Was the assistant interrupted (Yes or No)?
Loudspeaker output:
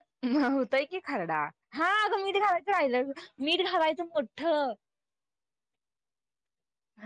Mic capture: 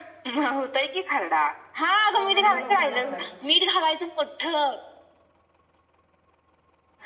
Yes